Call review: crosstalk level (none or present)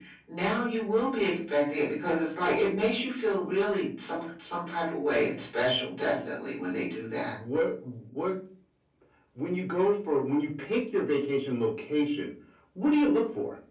none